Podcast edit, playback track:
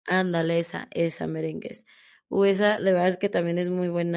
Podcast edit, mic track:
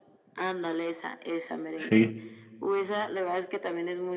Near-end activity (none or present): present